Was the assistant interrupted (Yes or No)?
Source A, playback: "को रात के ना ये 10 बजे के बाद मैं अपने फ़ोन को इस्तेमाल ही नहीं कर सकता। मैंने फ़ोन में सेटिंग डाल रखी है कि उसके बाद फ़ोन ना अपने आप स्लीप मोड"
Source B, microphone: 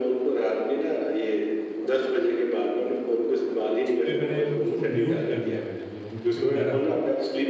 Yes